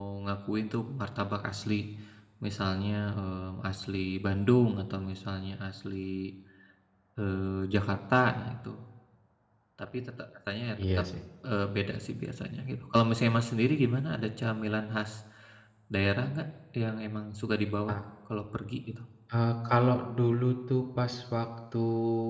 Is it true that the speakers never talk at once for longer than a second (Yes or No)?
Yes